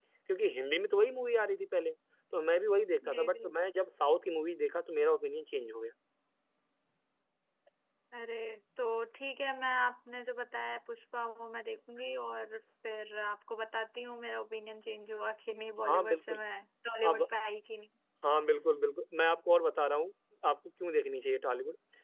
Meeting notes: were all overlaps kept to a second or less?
Yes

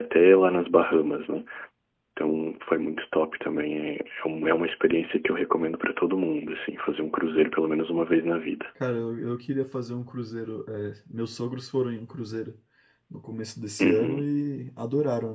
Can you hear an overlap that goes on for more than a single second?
No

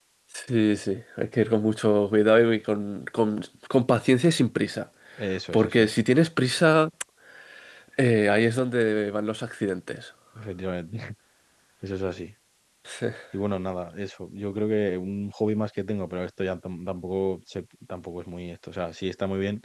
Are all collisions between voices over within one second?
Yes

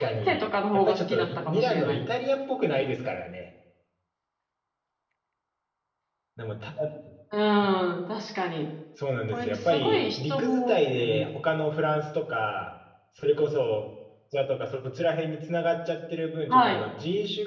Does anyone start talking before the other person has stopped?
Yes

